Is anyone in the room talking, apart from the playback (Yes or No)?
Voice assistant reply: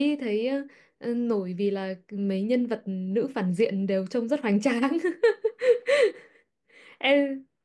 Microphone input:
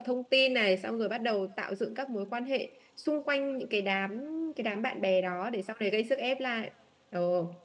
Yes